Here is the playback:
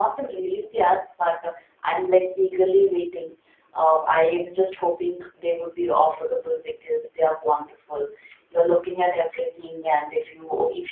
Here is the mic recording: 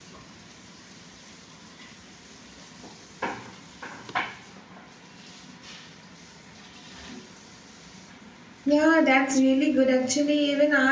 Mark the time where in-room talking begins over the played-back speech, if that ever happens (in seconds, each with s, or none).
8.6 s